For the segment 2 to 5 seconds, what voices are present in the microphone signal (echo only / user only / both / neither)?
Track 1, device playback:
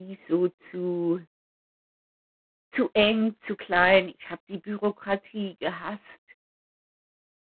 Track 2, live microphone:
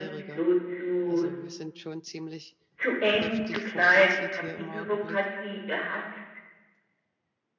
both